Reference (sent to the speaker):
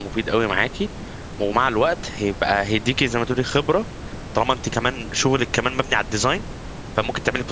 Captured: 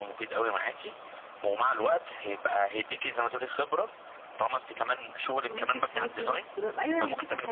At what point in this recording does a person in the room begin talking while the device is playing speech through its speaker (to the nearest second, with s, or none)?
5 s